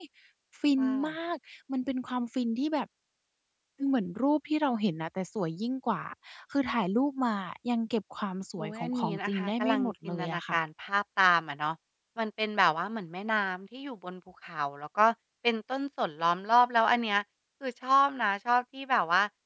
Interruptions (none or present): present